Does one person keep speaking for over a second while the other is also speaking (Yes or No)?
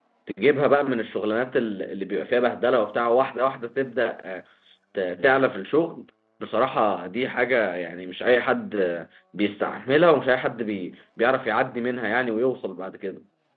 No